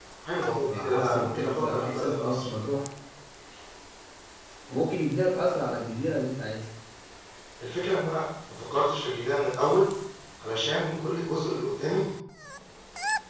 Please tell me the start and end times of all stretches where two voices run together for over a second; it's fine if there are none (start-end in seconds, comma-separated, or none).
0.7-2.5